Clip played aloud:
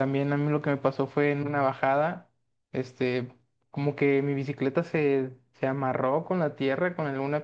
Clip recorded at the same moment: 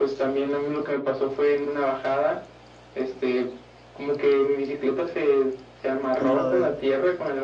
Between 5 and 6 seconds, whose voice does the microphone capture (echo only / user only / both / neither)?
echo only